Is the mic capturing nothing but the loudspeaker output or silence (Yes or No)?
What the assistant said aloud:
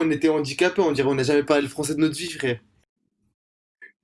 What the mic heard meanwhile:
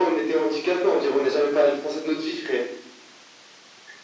Yes